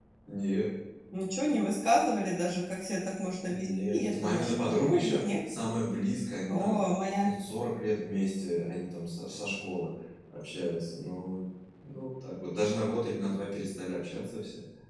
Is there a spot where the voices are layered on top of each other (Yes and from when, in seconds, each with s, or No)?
Yes, from 3.5 s